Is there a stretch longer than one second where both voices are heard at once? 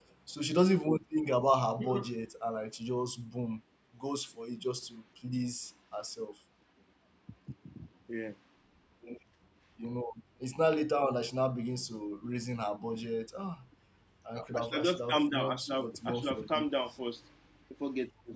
Yes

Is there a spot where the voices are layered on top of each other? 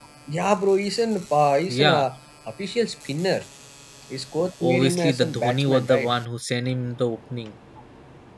Yes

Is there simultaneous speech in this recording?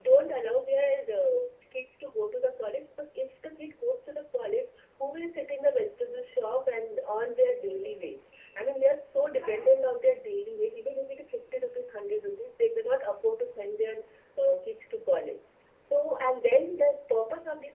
No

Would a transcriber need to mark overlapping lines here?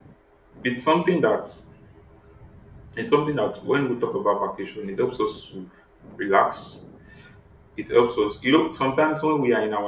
No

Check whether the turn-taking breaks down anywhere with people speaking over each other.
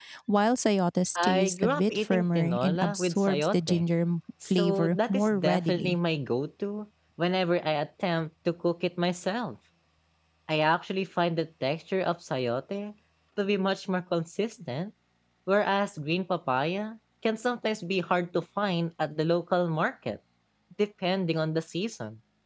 Yes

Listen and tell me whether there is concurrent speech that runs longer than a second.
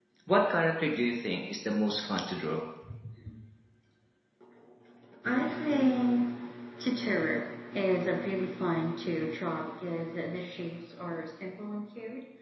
No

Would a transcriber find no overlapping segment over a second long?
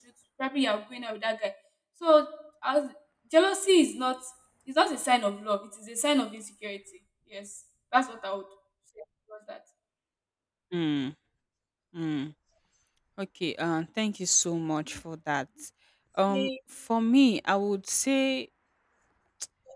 Yes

